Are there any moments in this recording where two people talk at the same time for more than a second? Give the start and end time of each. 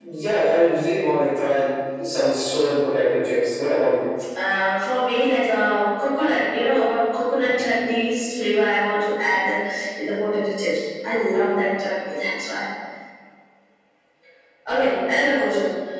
none

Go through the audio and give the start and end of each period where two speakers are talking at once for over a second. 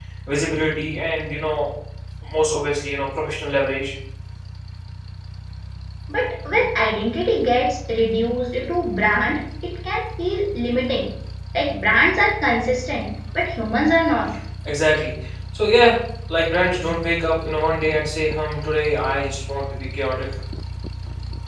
none

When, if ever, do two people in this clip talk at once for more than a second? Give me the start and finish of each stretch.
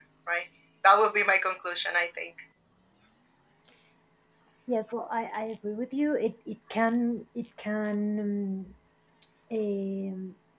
none

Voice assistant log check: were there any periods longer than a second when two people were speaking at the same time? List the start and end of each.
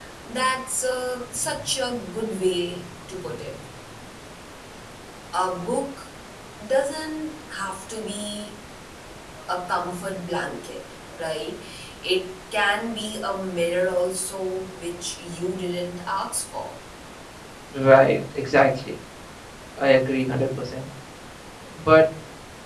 none

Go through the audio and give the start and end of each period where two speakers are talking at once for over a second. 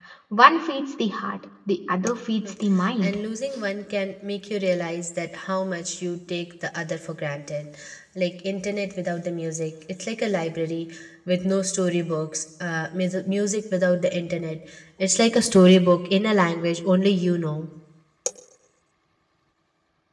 none

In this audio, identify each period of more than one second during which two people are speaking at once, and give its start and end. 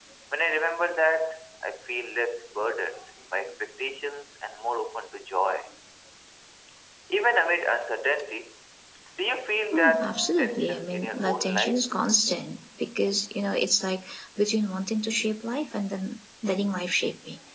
9.7-11.9

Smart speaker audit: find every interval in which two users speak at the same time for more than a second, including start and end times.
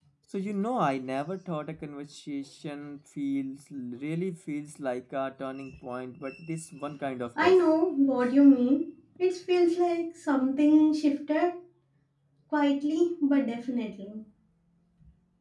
none

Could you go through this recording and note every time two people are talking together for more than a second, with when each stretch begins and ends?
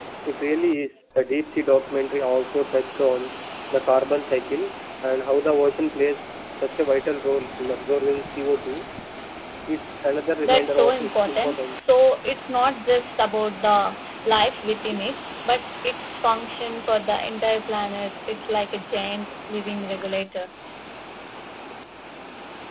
10.4-11.8

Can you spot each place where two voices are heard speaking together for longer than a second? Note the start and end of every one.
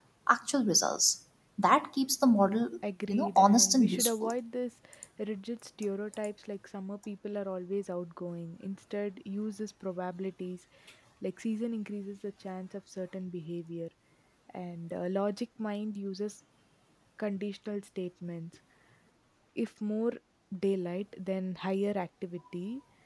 3.1-4.3

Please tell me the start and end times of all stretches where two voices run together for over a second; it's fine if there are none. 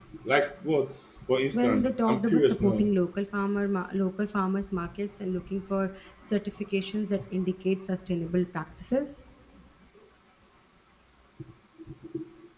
1.5-2.8

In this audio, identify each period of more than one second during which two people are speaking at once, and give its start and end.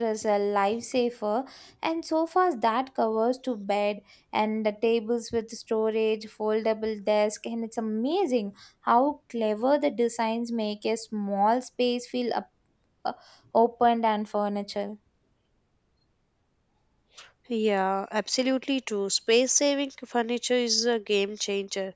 none

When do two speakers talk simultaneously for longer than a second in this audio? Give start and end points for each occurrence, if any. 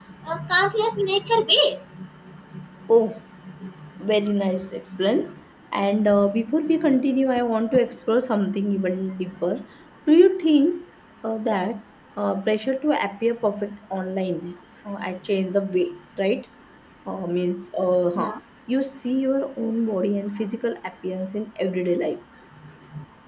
none

